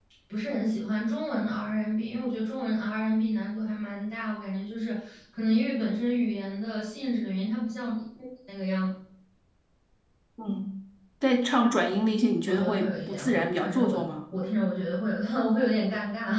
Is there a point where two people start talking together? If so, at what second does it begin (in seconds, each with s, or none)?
12.5 s